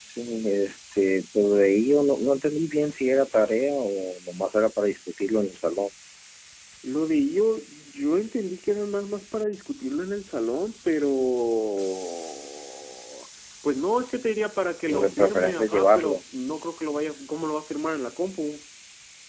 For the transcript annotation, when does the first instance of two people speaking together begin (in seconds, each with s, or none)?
14.9 s